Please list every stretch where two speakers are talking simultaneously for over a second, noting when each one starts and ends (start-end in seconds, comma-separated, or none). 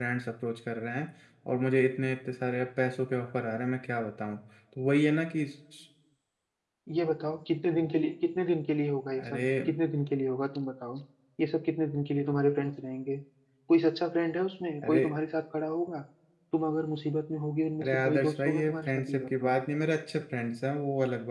17.8-19.5